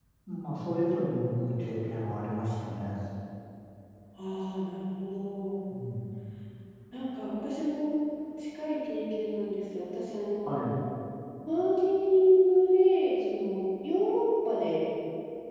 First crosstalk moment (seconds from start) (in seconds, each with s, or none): none